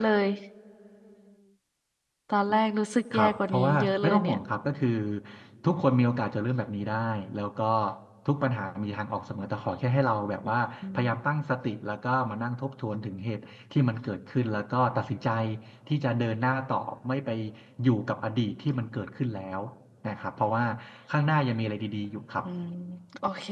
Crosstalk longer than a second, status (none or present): present